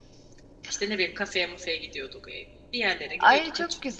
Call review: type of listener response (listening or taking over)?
taking over